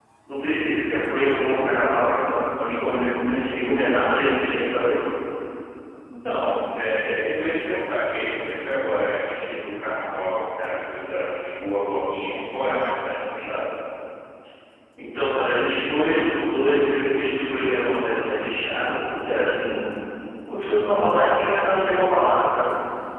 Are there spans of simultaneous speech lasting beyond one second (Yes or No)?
No